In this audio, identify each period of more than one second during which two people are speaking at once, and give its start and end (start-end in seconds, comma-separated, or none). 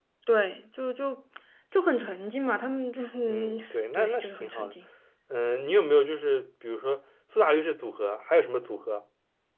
3.3-4.8